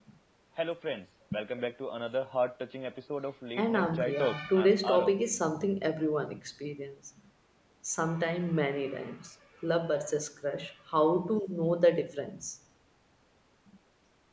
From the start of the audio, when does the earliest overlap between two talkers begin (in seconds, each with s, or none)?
3.6 s